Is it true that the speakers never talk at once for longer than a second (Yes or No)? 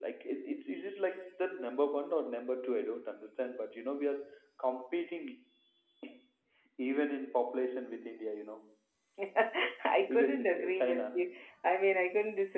No